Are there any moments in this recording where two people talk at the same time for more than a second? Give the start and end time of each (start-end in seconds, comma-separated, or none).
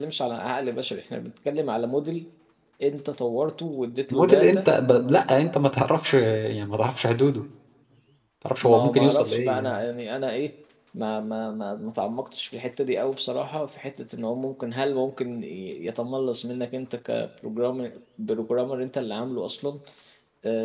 8.6-9.8